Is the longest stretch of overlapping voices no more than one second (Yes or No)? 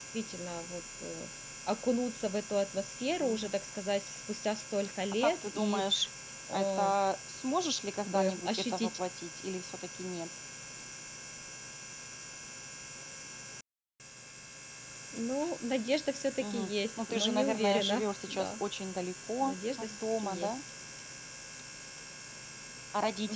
No